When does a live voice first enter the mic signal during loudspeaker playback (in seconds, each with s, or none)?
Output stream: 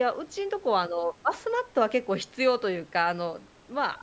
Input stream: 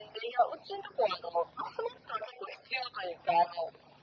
none